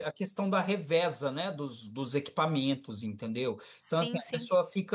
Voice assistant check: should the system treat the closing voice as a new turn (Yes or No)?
No